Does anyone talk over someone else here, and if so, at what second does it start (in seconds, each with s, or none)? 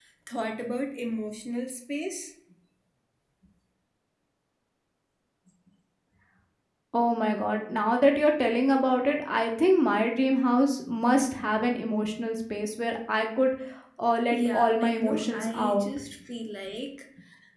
14.3 s